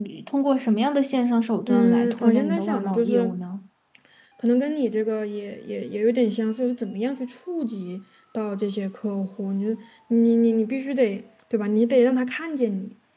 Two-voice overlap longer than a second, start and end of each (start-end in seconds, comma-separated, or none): 1.7-3.4